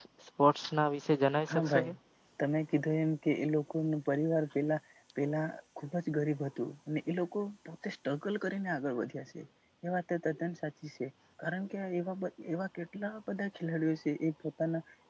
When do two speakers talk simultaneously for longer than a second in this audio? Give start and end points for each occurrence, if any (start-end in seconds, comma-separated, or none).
none